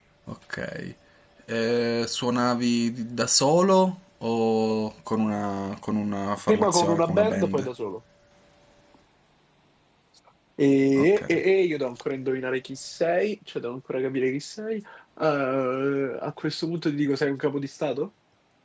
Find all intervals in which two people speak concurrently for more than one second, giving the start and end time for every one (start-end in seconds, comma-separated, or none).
6.5-7.7